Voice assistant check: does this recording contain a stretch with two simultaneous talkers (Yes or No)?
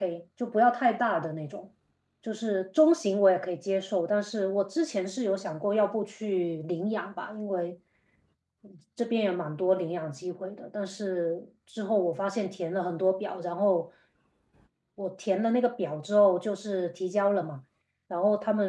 No